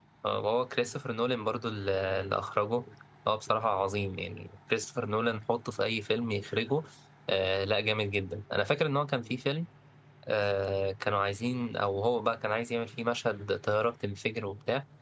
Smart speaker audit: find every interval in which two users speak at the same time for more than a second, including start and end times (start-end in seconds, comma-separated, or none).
none